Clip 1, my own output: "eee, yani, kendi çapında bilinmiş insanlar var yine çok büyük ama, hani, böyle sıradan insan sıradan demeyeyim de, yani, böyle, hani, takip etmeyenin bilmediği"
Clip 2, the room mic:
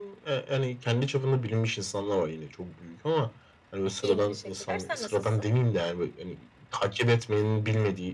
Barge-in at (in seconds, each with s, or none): 4.0 s